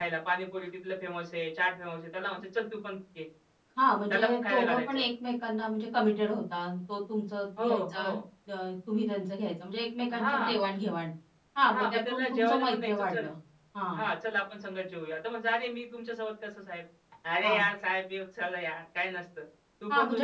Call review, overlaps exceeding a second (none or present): present